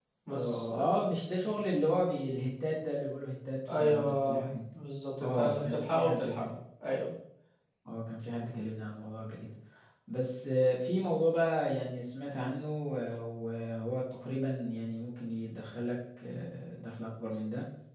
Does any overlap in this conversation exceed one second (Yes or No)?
Yes